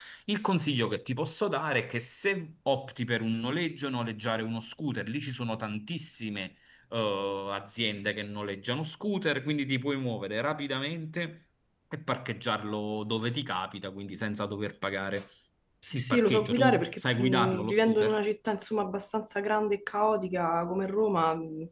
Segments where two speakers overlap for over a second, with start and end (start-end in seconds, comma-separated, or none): 15.9-18.2